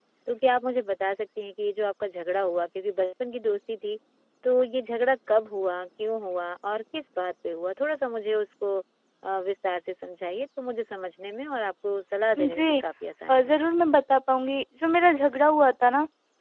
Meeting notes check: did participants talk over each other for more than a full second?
No

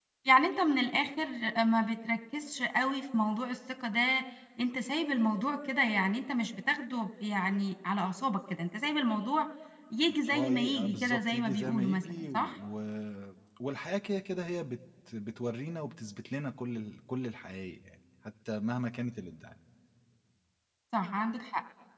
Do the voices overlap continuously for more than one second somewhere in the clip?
Yes, from 10.3 s

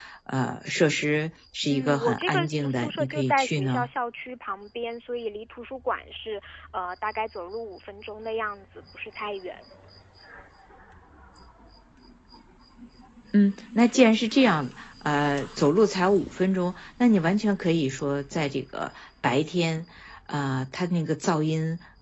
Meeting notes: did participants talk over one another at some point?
Yes, from 1.7 s

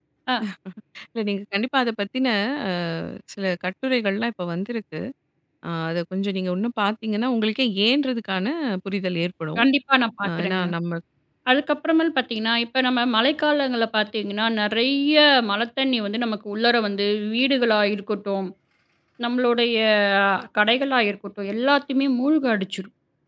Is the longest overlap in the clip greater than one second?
No

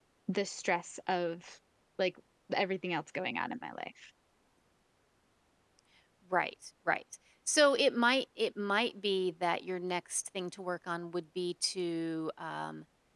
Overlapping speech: No

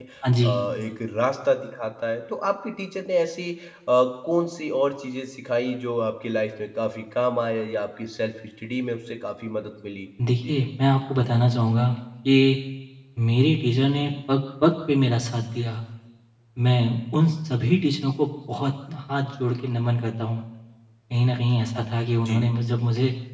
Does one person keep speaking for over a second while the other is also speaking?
No

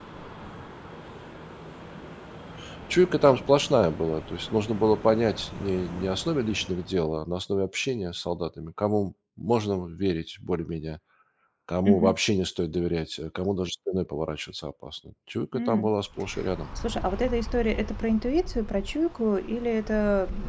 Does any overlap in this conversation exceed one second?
No

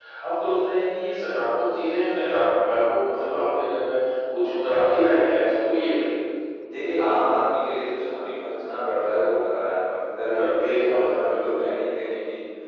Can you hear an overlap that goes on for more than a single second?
Yes, from 10.3 s

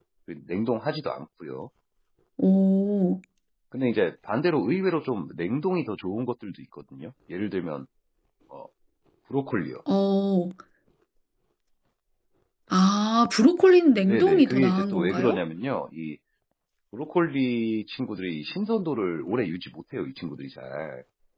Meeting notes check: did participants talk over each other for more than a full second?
Yes, from 14.0 s

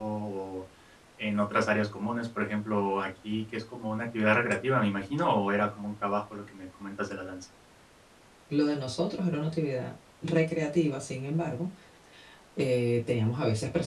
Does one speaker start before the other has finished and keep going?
No

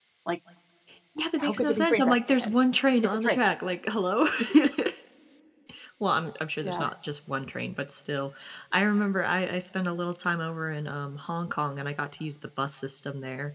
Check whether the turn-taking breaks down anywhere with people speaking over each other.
Yes, from 1.2 s

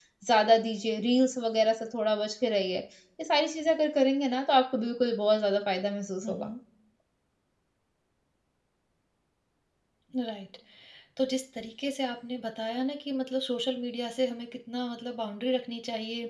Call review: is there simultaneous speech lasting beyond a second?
No

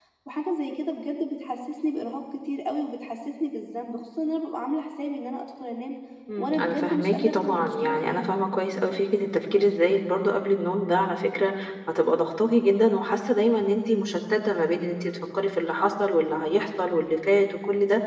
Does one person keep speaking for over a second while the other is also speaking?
Yes, from 6.4 s

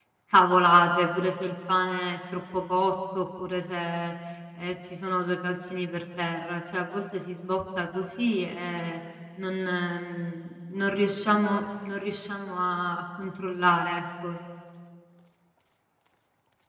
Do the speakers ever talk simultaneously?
No

